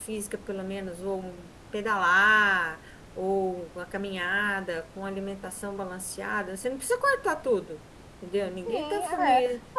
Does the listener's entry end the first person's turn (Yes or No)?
Yes